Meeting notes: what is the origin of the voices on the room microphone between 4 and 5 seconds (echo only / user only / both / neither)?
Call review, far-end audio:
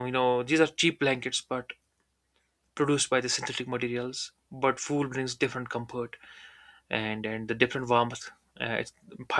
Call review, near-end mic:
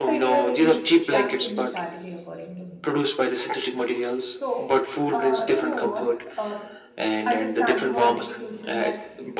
both